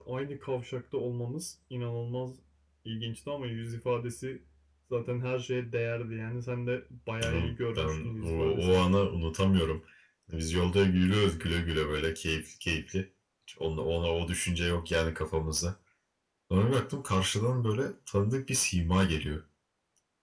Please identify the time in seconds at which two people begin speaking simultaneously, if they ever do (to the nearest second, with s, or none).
7 s